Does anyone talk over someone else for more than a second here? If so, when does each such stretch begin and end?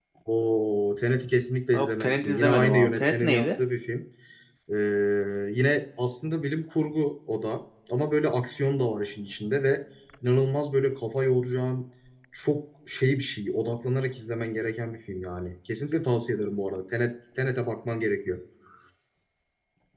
1.7-3.5

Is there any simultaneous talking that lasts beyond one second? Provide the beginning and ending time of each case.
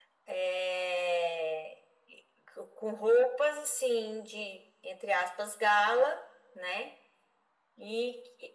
none

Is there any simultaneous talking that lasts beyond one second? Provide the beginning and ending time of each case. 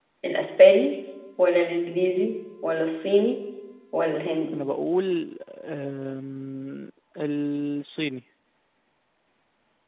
none

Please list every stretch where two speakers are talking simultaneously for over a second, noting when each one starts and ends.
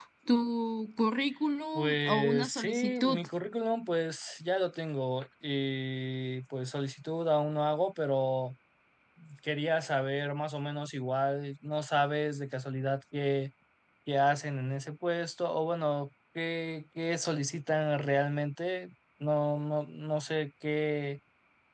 1.8-3.2

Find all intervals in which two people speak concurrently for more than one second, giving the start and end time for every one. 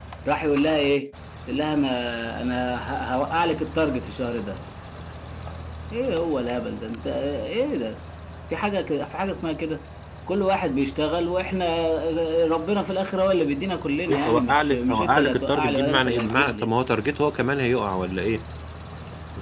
14.1-16.7

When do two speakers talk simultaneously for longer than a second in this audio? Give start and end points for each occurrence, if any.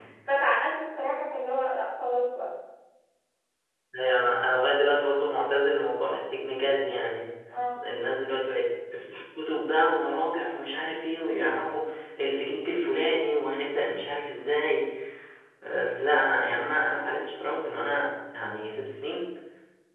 none

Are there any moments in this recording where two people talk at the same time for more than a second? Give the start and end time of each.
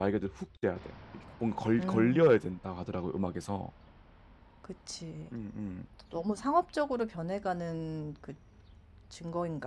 none

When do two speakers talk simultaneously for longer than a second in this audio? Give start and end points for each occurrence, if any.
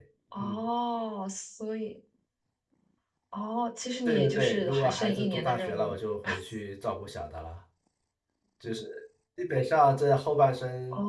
4.0-6.0

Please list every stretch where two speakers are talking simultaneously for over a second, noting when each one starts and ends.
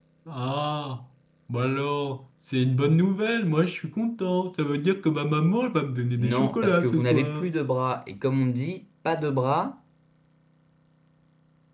6.2-7.5

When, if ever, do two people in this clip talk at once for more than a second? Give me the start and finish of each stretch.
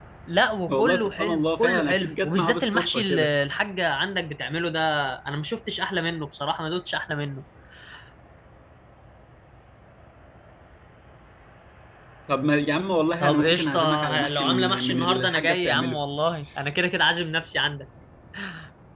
0.7-3.3, 13.2-16.0

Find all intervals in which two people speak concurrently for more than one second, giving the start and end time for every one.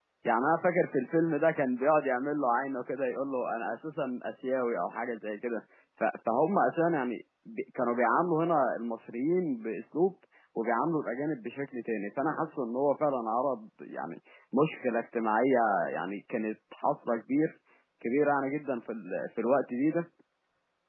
none

